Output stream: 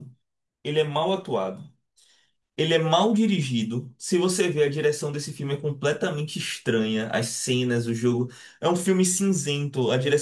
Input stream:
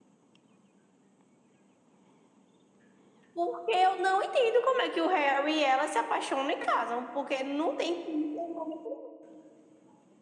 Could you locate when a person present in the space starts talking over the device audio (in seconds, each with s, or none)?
3.3 s